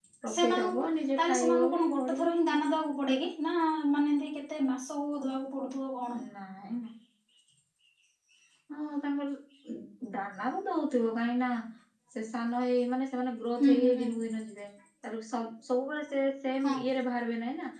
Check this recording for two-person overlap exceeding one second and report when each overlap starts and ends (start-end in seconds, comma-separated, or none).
1.2-2.7